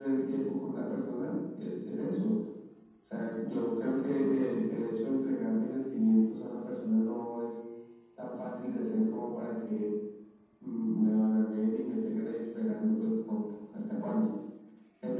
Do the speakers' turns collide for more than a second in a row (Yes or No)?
No